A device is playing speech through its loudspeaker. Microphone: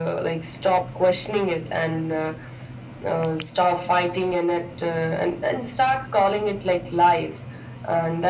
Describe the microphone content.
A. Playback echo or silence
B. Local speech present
A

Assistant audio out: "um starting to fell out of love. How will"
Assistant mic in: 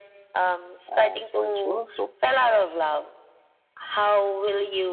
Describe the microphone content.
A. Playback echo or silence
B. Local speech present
B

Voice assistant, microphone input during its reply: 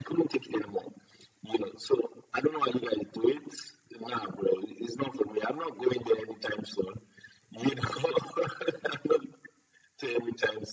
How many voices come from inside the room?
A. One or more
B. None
B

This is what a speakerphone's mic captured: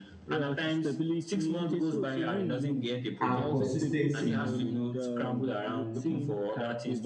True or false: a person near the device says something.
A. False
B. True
B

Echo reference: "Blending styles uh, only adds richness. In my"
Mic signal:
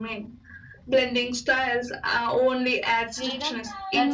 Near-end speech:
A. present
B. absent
A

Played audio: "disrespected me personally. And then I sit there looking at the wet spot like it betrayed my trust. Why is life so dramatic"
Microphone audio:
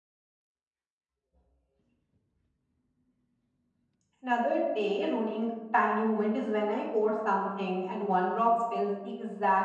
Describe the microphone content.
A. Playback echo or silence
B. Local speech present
B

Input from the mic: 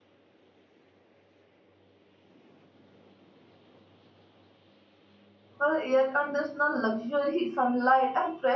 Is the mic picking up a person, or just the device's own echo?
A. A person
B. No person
A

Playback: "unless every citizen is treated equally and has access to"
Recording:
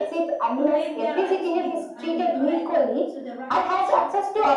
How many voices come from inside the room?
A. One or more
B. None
A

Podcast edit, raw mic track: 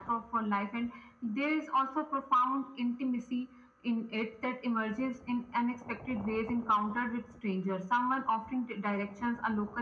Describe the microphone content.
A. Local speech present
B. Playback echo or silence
B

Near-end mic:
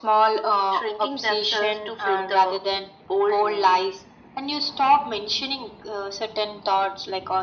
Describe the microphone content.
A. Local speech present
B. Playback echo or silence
B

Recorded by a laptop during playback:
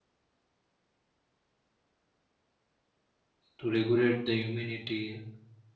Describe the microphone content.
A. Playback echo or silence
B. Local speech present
B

